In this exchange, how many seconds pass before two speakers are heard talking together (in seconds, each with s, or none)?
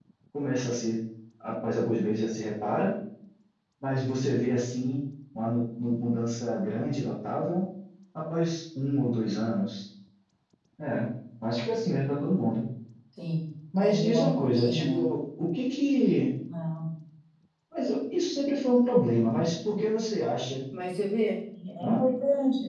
13.8 s